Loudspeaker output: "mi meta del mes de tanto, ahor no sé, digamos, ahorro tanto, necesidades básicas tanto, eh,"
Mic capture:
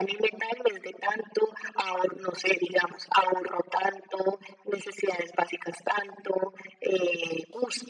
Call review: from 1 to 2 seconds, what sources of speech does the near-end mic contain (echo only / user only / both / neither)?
echo only